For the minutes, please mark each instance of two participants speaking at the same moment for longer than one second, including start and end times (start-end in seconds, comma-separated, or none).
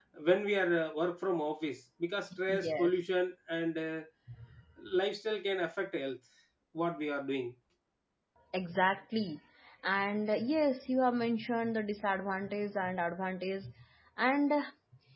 none